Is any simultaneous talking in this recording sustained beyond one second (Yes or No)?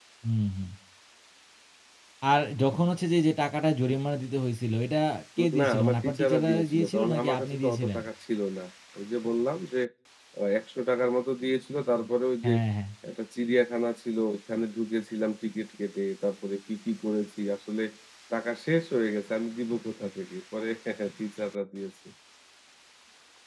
Yes